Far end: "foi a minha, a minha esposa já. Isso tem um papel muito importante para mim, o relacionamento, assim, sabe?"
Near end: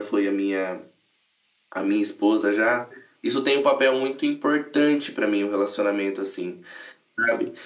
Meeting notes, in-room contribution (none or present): none